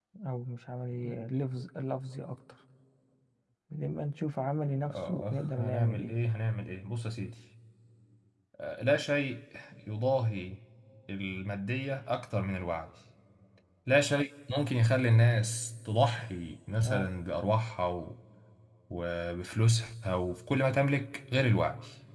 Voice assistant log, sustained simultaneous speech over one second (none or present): present